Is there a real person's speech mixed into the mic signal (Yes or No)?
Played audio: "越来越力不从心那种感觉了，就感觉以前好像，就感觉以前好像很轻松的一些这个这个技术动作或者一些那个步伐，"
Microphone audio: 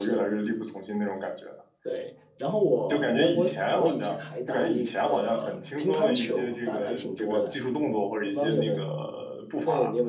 Yes